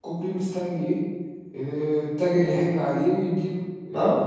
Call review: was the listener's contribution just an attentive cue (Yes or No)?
No